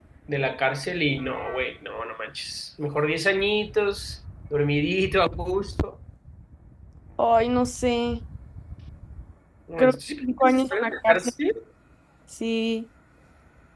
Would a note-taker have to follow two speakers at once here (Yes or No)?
Yes